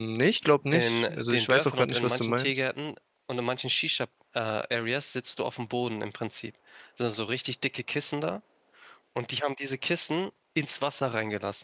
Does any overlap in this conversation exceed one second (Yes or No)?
Yes